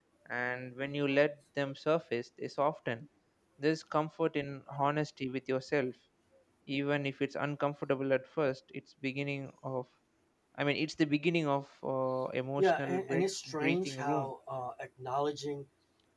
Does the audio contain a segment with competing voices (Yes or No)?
Yes